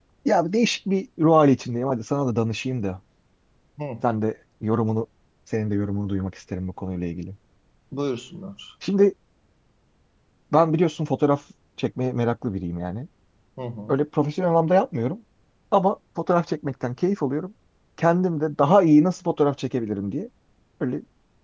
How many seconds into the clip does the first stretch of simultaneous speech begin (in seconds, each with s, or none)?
none